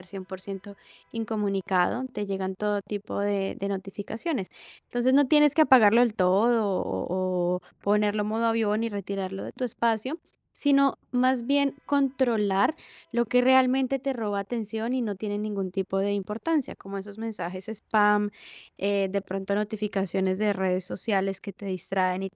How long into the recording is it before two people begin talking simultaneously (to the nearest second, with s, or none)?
none